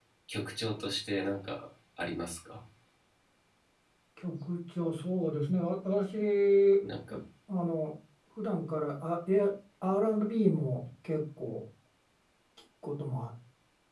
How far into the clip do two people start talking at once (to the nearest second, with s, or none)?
none